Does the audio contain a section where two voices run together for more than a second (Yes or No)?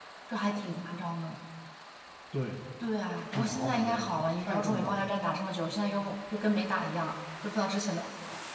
Yes